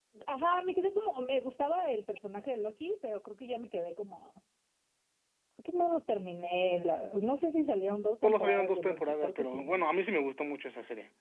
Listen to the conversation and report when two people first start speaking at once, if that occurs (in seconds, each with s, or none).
8.2 s